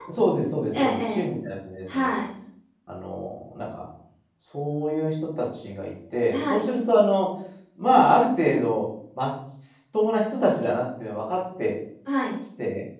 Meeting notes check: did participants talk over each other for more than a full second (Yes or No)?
No